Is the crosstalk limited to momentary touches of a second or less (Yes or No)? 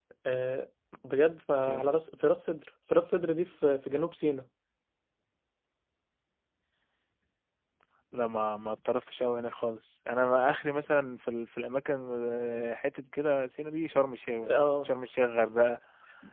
Yes